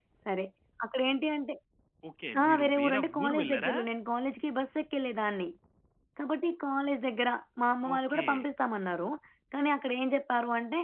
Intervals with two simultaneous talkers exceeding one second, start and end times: 2.4-3.7

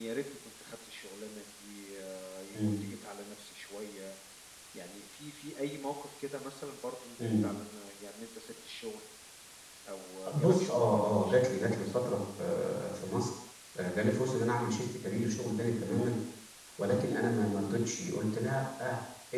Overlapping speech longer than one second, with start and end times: 10.4-12.1

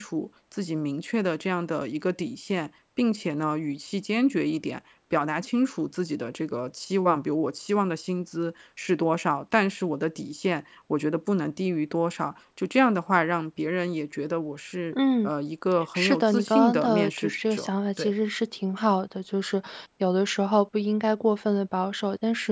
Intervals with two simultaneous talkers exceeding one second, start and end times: 15.9-18.1

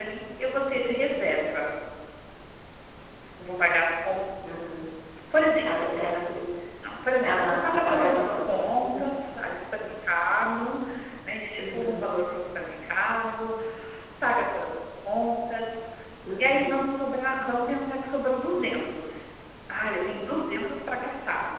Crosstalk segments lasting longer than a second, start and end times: 7.2-9.0

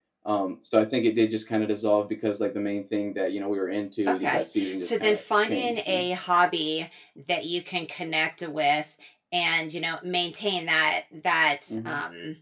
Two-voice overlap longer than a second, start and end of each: 4.1-6.0

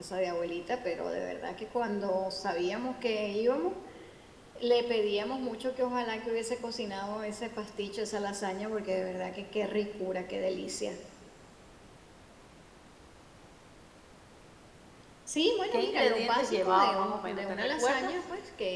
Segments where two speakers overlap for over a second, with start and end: 15.7-18.1

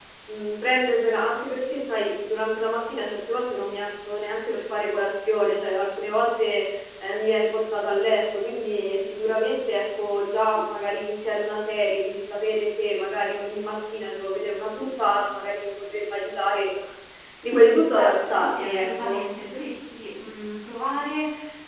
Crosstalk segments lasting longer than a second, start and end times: 17.9-19.2

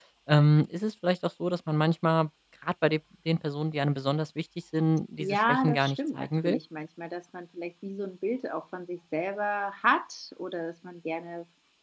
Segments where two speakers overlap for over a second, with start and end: 5.2-6.6

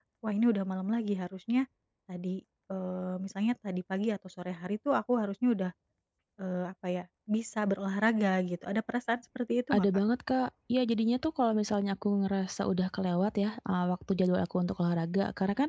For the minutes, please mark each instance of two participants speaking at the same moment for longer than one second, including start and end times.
none

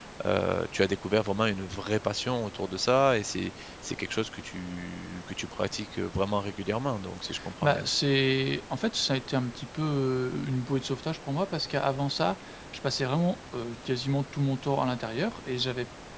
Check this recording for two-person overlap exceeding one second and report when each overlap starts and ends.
none

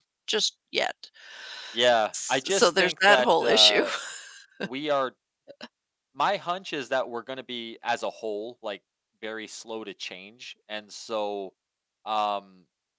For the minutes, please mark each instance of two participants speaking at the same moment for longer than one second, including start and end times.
2.3-3.9

